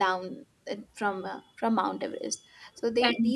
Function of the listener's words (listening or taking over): listening